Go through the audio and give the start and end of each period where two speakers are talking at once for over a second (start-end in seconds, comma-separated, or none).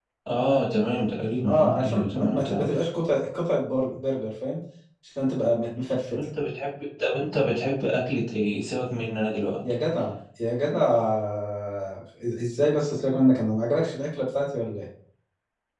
1.5-2.7